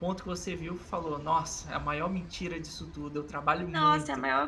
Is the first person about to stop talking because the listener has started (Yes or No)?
Yes